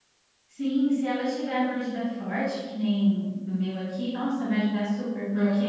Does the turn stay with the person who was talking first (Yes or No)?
Yes